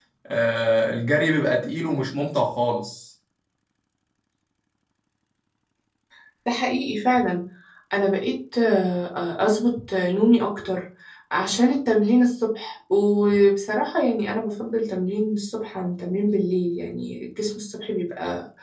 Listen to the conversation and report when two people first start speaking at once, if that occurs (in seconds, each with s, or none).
none